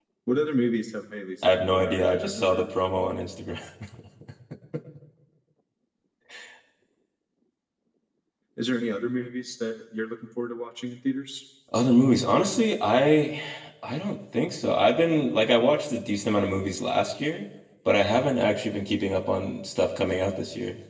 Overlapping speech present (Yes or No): Yes